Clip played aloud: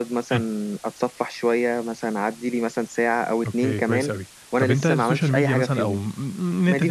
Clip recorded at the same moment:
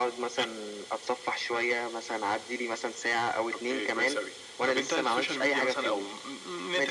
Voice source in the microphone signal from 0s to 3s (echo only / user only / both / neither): echo only